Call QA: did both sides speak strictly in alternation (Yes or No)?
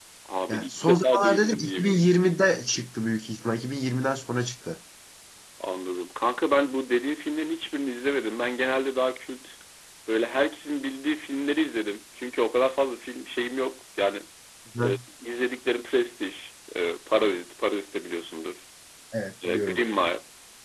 No